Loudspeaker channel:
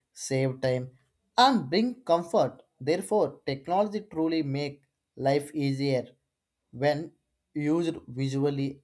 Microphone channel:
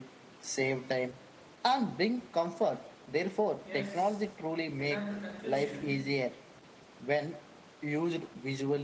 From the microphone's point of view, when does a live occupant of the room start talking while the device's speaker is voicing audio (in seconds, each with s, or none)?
3.6 s